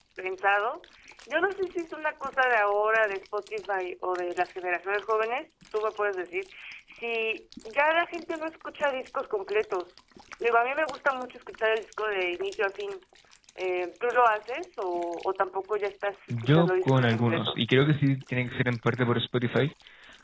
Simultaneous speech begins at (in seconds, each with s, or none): 16.3 s